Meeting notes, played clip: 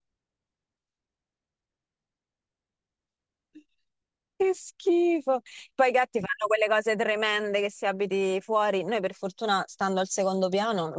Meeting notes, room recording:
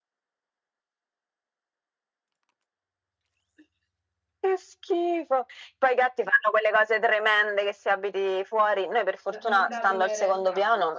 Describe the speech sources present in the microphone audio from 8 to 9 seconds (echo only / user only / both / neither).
echo only